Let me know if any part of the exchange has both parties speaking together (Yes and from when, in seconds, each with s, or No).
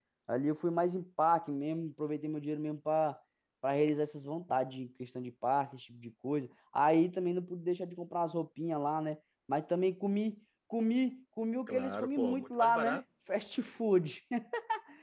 Yes, from 11.7 s